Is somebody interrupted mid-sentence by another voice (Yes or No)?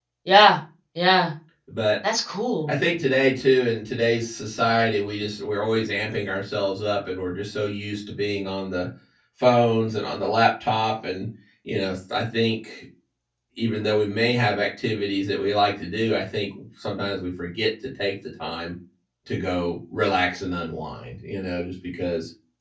No